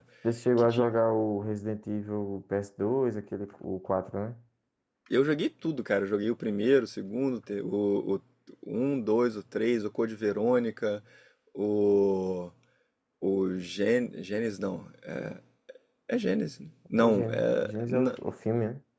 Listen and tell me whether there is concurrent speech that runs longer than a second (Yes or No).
Yes